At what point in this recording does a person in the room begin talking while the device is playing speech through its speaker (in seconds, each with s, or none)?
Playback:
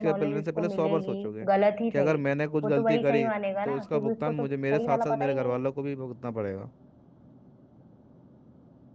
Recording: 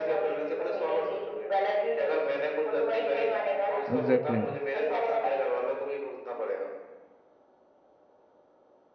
3.9 s